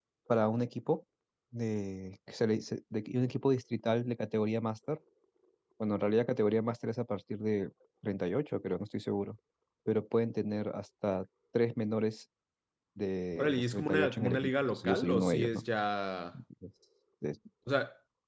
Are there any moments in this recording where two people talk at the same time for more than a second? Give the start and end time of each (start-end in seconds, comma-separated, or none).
13.4-15.6